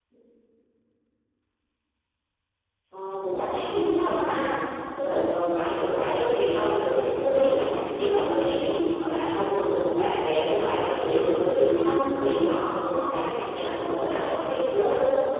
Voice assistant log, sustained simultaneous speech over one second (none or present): present